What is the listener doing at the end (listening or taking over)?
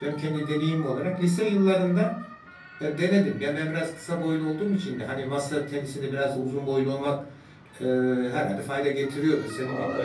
taking over